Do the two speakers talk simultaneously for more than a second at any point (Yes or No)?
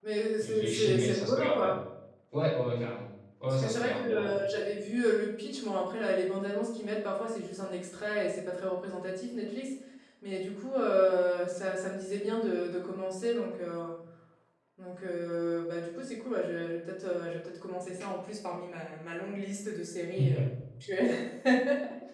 Yes